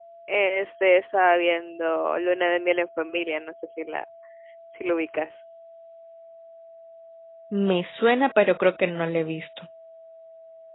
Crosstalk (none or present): none